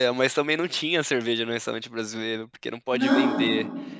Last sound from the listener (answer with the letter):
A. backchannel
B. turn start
A